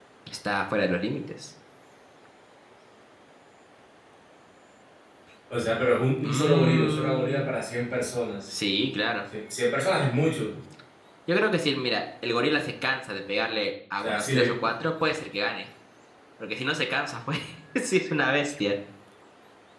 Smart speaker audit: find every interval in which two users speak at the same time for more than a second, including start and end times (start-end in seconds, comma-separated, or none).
6.2-7.5